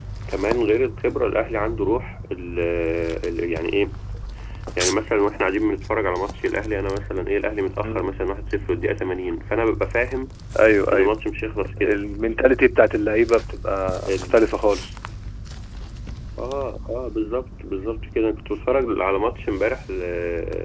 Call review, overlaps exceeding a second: none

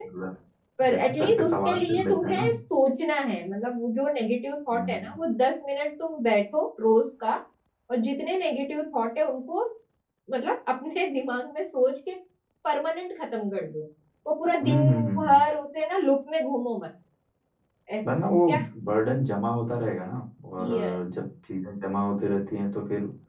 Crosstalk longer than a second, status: present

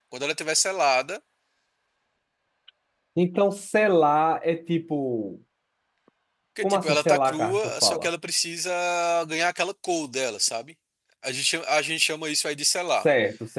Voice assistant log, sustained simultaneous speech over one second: present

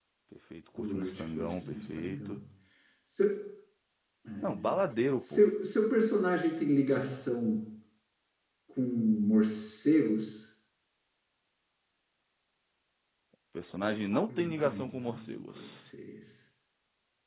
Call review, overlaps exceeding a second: present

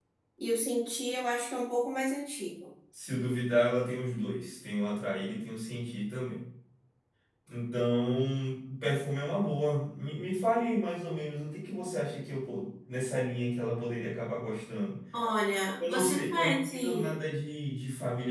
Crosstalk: present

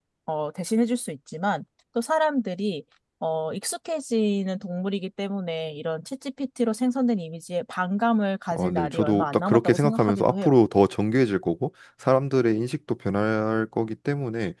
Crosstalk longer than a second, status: present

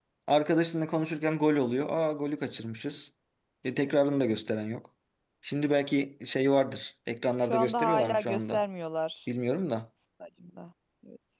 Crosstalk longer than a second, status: present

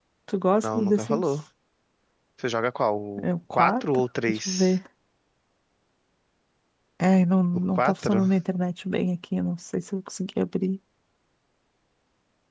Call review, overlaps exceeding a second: present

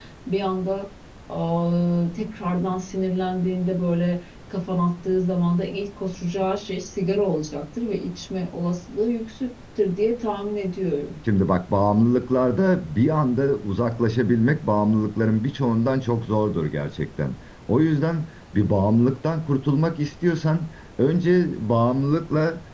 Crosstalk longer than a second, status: none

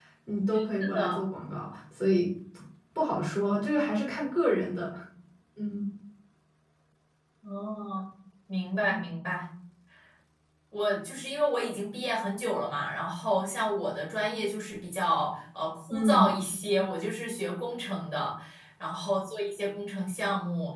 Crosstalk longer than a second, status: none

